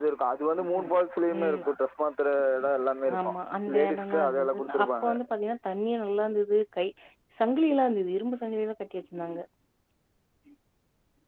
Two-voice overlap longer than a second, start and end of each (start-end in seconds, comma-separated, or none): 3.7-5.1